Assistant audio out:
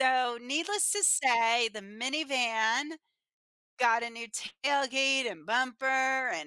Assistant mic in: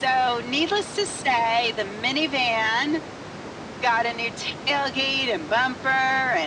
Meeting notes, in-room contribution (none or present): none